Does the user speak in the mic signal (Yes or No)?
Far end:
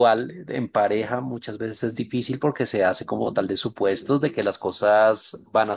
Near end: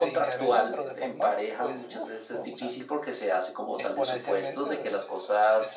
Yes